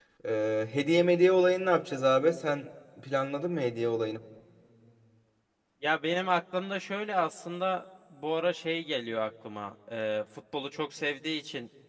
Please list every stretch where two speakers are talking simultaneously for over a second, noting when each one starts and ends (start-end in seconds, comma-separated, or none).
none